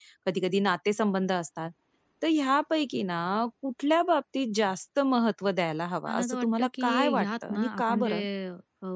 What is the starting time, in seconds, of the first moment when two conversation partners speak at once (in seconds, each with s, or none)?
6.1 s